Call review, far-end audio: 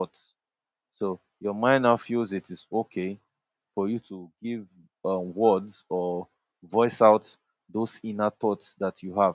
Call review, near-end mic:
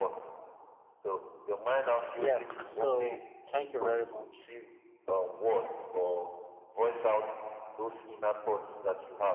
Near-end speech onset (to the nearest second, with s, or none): 2 s